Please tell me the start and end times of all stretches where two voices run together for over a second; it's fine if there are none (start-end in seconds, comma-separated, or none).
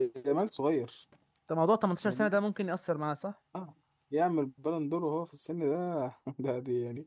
none